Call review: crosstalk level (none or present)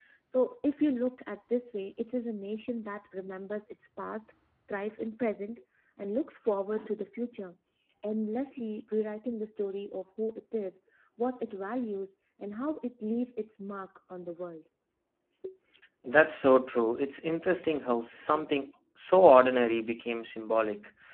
none